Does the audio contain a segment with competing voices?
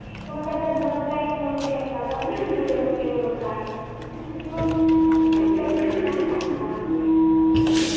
Yes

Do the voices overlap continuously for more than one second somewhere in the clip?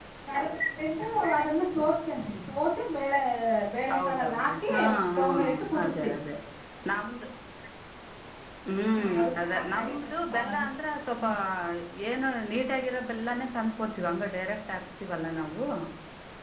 Yes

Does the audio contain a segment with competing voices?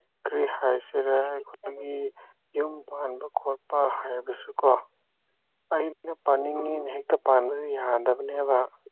No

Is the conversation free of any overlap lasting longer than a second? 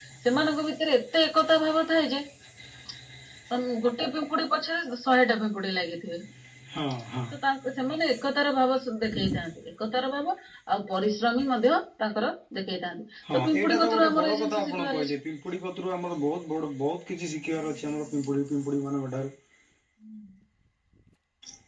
No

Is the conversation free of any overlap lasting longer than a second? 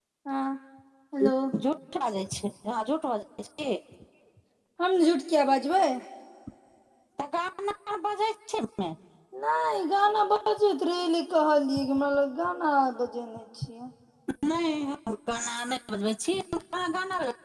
Yes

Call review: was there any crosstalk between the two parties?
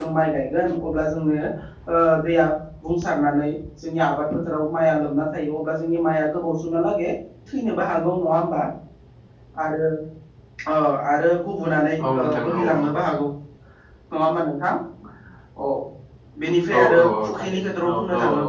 Yes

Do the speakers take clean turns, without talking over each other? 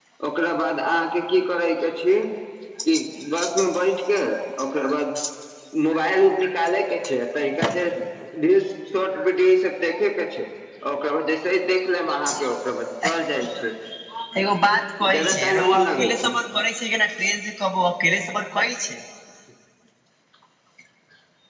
No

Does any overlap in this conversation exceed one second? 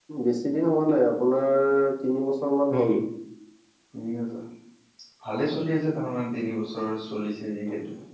No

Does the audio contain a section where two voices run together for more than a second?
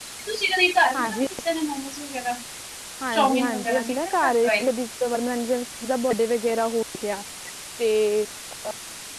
Yes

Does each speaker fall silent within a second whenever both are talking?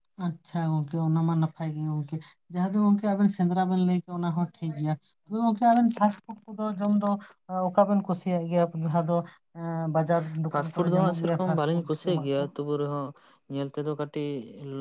No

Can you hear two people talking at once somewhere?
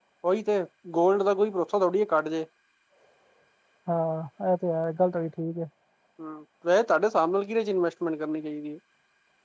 No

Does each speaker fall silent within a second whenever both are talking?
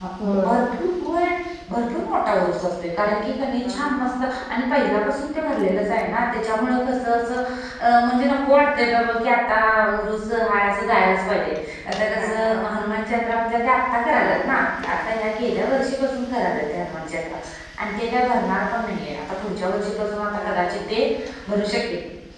Yes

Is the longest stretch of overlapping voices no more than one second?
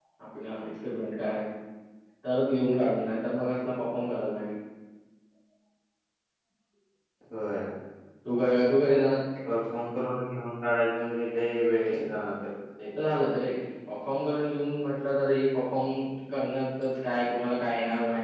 Yes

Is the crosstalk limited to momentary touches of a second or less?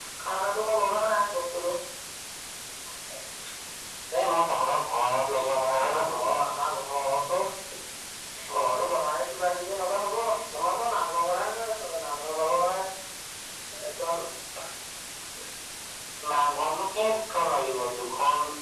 Yes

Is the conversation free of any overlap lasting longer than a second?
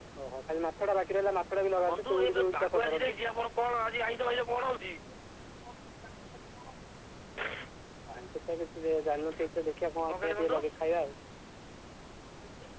No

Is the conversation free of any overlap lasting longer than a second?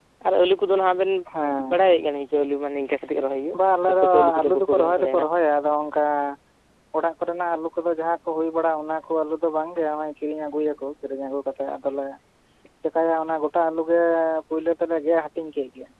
No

